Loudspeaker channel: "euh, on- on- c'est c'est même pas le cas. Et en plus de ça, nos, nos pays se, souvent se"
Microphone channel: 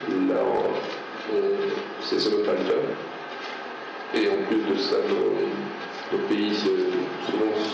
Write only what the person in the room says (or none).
none